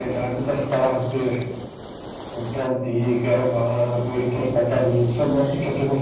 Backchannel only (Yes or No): Yes